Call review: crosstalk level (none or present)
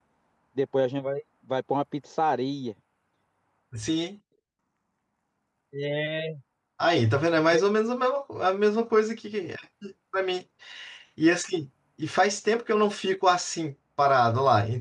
none